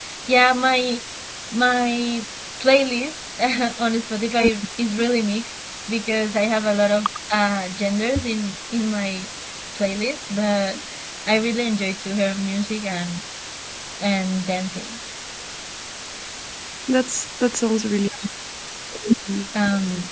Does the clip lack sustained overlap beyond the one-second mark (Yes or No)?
Yes